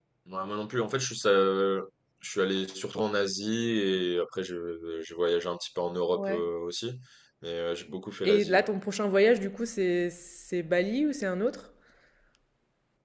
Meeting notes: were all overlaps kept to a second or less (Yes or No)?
Yes